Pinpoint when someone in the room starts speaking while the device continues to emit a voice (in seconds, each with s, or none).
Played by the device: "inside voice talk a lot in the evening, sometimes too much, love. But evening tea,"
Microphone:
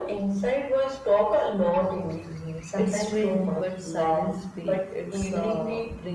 2.8 s